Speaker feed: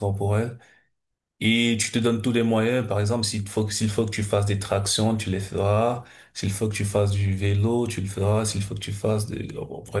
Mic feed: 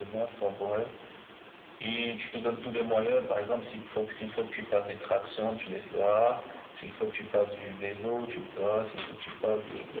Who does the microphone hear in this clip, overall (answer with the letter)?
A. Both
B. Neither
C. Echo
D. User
C